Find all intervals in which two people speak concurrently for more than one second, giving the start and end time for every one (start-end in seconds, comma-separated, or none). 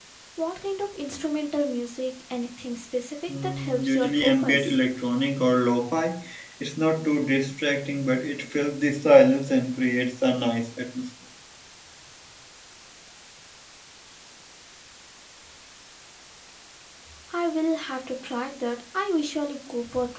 3.3-4.8